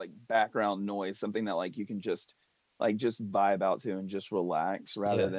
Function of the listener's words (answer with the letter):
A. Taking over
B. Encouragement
A